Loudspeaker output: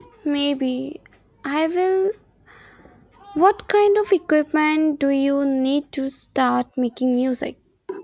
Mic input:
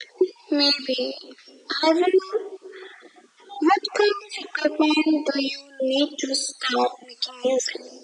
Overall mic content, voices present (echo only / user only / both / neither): echo only